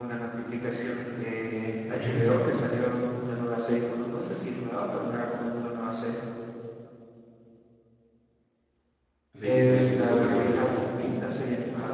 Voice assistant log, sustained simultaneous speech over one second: present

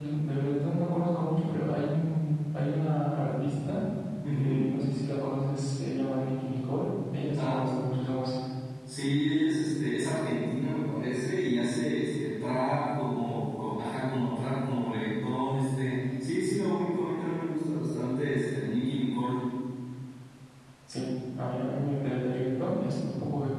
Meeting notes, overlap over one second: none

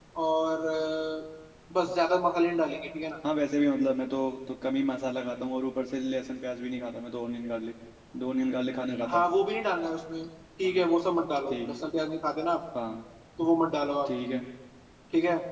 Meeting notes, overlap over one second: none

